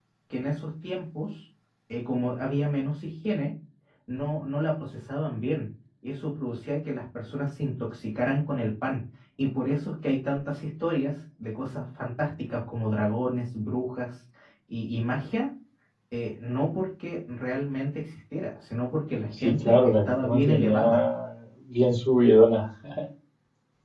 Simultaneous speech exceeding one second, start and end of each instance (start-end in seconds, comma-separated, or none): 19.4-21.0